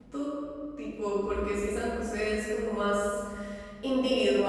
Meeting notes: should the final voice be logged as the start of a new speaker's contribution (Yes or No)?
No